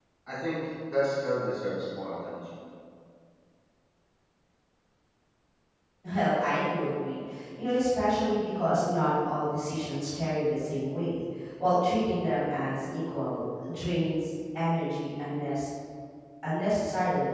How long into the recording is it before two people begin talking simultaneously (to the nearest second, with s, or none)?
none